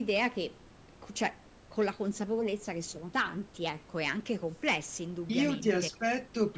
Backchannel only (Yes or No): No